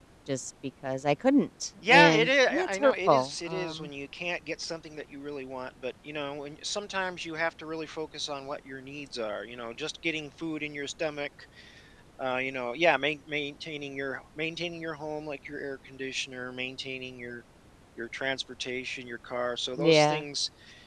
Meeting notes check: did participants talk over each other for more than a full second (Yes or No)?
Yes